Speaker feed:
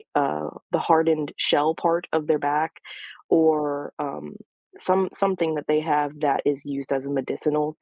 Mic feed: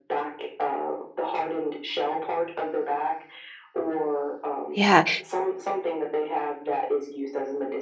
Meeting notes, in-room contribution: present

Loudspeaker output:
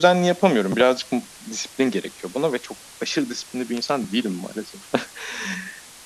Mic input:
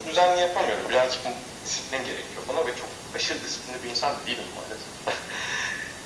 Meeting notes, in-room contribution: none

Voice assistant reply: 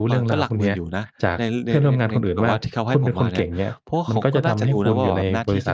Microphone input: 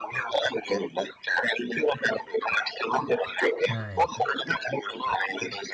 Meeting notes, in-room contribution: present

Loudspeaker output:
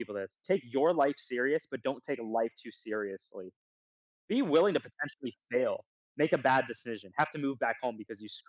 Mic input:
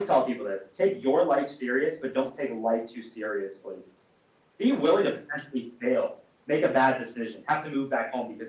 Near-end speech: none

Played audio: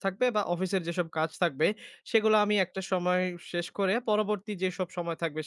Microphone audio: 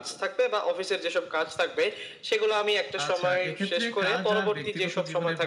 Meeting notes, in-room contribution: present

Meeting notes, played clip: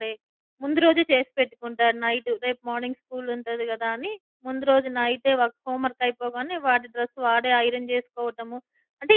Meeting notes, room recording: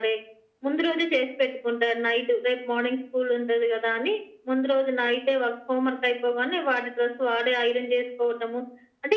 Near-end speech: none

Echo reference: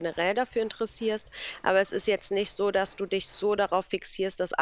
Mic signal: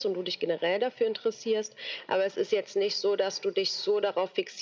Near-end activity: none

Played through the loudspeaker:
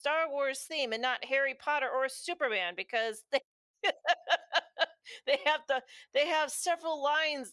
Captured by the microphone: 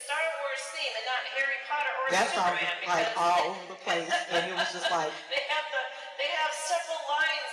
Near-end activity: present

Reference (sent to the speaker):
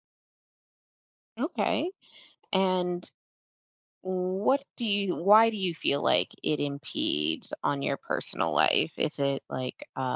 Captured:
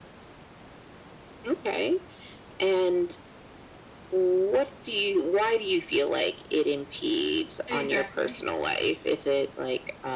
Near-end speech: present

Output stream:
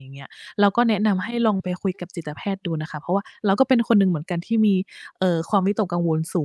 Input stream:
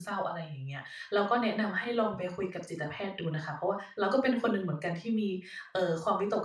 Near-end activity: none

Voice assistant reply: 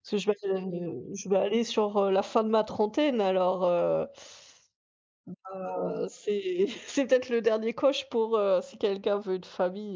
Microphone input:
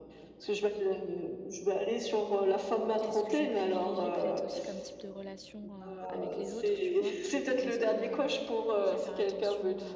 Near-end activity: present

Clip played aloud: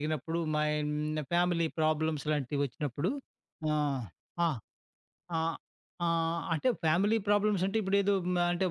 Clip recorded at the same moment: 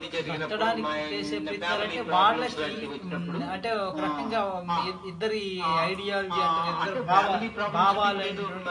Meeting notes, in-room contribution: present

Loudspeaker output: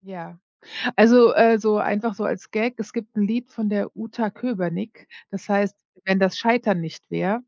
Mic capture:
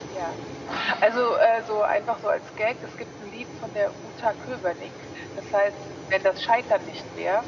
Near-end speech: none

